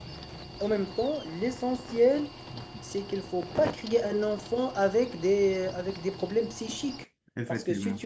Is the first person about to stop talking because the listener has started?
No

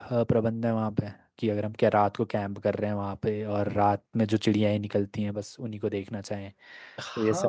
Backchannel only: No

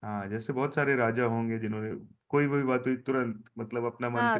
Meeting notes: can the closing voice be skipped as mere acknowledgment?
No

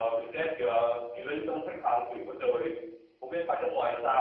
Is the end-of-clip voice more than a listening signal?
Yes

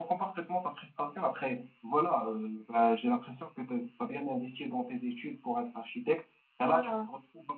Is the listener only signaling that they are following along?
Yes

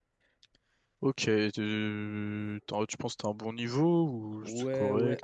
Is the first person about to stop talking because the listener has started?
Yes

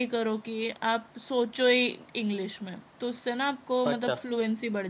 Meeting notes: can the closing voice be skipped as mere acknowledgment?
Yes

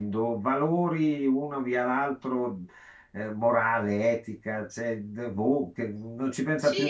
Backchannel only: No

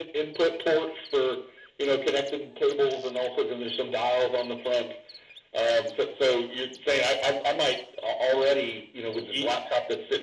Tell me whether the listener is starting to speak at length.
No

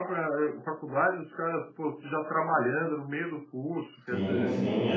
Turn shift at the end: Yes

